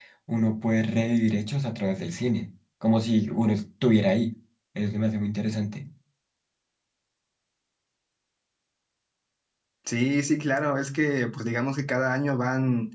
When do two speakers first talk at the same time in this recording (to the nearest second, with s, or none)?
none